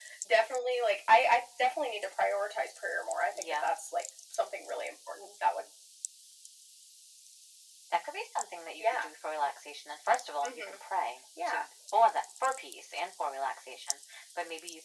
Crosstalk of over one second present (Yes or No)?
No